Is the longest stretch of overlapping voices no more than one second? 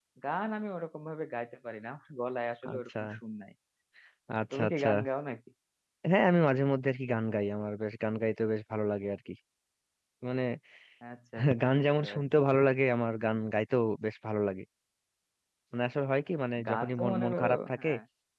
No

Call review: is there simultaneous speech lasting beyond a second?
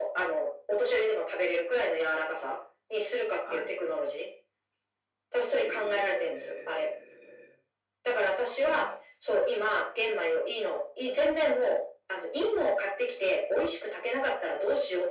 Yes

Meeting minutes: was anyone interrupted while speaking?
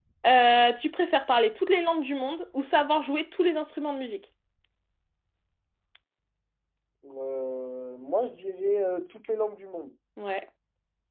No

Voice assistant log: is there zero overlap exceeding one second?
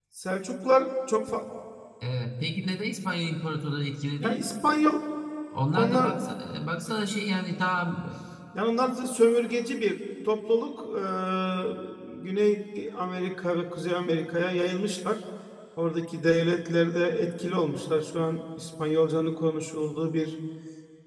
Yes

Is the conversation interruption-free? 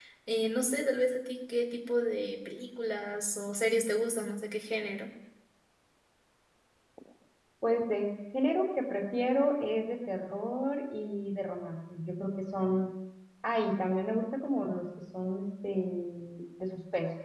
Yes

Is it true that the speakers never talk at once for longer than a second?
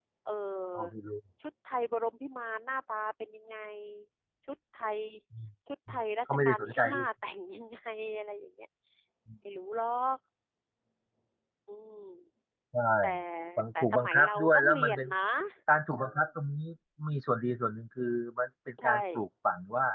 No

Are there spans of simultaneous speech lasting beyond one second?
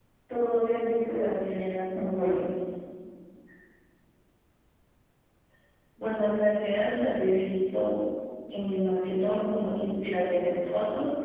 No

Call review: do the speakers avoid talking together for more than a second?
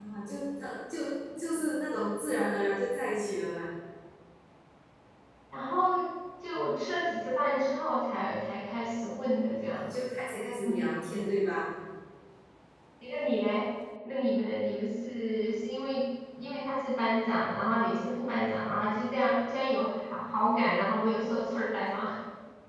Yes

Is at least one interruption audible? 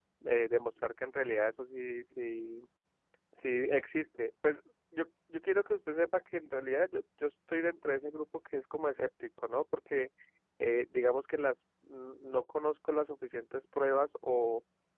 No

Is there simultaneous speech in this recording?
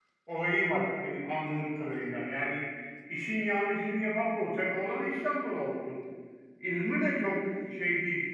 No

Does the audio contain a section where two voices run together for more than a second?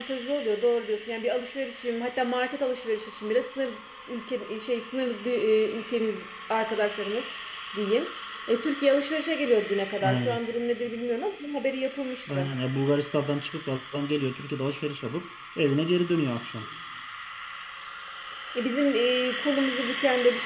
No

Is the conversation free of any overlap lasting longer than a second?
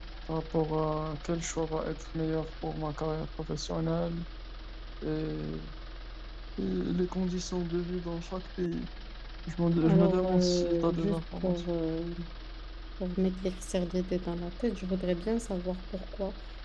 No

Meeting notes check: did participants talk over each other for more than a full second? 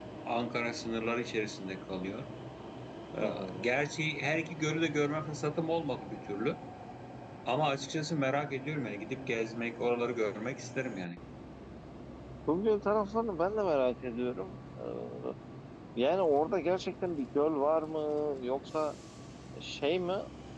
No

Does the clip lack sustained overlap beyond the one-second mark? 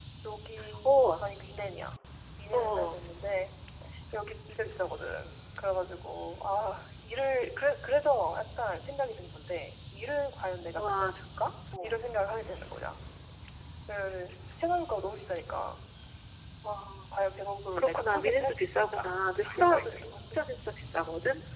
No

